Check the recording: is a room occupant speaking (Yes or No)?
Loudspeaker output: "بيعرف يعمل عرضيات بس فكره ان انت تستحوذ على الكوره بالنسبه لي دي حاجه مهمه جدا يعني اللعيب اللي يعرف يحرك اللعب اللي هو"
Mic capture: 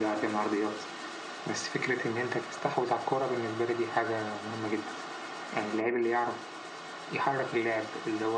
No